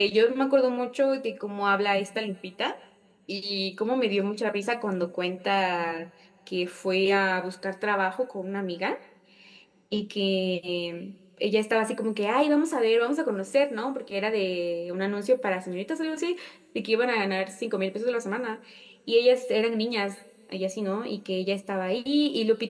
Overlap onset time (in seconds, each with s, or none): none